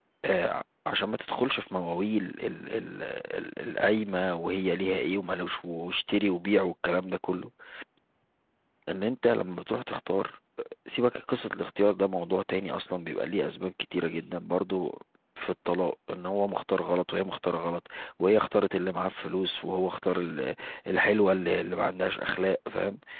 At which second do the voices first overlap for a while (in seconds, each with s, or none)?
none